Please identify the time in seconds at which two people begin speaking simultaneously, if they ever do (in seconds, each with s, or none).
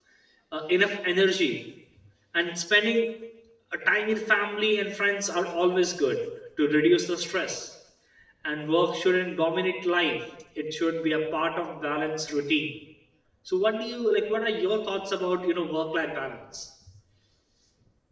none